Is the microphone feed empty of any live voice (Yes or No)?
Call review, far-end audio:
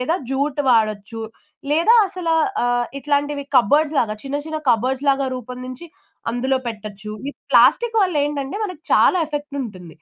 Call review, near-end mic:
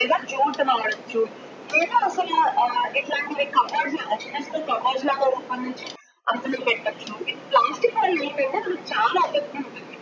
Yes